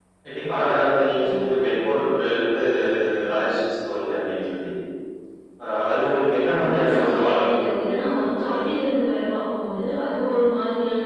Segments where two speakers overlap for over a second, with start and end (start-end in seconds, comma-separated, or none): 6.6-8.6